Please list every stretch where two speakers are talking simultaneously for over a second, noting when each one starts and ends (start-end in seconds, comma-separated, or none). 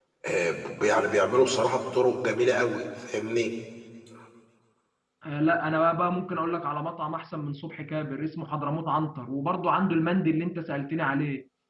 none